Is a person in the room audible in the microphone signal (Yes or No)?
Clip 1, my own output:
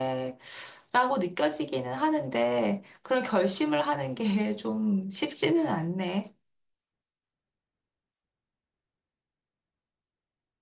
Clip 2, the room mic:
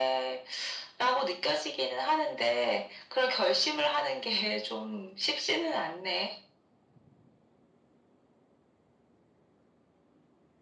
No